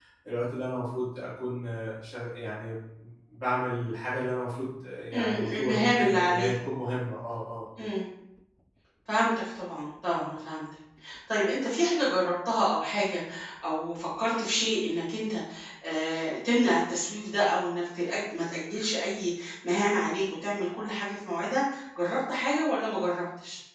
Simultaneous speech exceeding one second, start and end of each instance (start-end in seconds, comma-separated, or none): 5.1-6.5